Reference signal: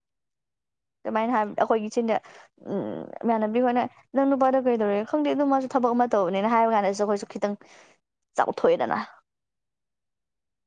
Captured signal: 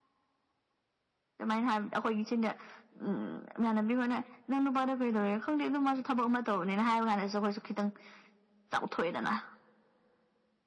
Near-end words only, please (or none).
none